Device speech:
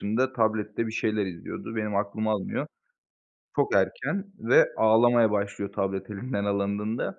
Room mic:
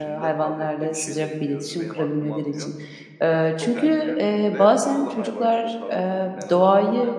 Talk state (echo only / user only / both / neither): both